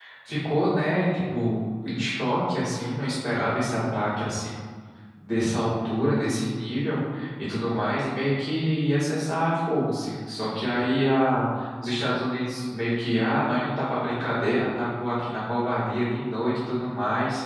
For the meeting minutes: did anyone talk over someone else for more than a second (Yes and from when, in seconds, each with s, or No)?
No